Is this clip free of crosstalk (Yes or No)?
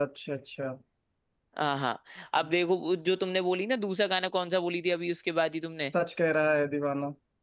Yes